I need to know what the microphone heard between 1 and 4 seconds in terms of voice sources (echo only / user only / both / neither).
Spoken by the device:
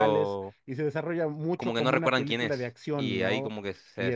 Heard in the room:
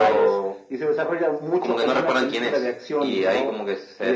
echo only